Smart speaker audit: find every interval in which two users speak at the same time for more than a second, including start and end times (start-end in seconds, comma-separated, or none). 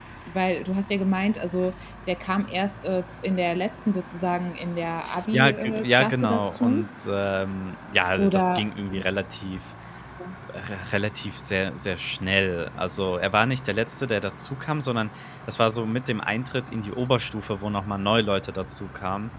5.3-6.8